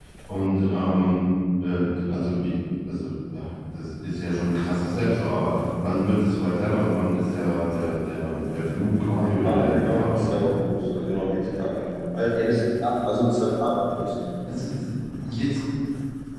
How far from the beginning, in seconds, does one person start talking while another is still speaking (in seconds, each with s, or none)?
9.2 s